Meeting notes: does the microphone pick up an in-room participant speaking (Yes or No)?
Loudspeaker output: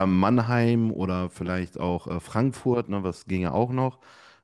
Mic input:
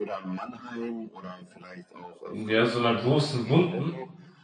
Yes